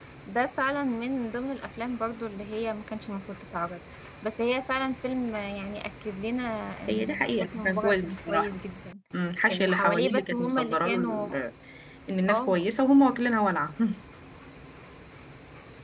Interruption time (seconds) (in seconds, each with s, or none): 6.9 s